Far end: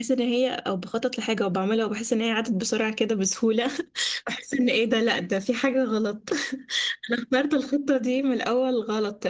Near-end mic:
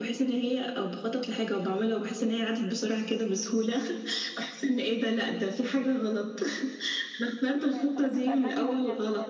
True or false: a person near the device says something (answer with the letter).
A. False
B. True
B